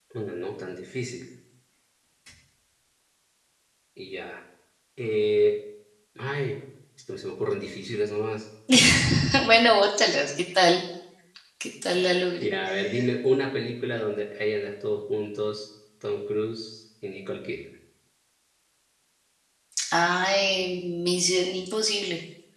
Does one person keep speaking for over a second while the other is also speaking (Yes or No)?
No